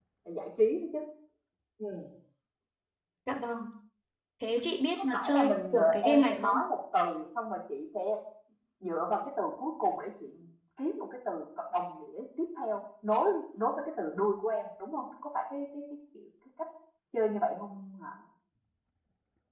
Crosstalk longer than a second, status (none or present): present